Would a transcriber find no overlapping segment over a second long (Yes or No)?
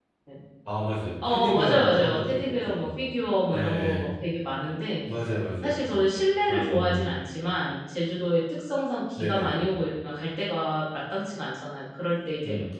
No